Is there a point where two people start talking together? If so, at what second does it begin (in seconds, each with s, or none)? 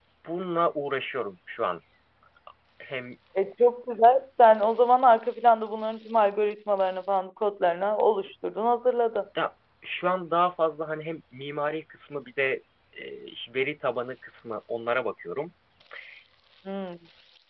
none